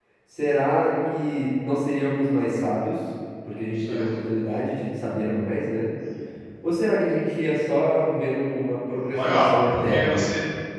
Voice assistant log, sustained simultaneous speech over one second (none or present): present